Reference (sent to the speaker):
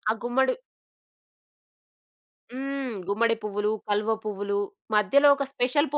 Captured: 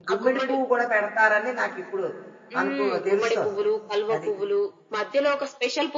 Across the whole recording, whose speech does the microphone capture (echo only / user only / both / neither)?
both